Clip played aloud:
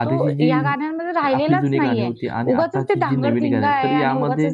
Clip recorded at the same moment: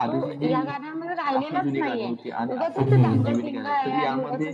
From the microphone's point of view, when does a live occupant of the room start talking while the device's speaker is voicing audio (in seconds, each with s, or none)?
2.8 s